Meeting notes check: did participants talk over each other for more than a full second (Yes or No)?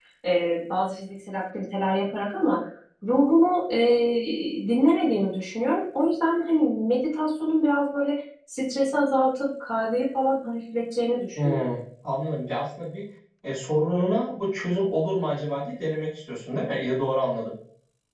No